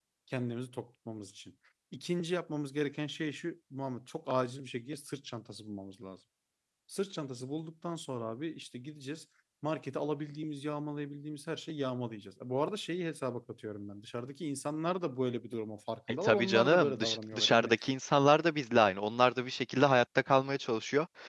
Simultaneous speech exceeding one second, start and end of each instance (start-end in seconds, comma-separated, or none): 16.2-17.7